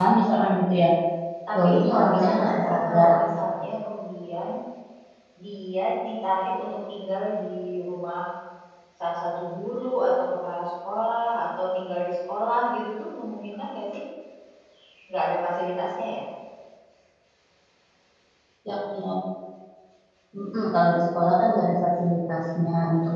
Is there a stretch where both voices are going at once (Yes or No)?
Yes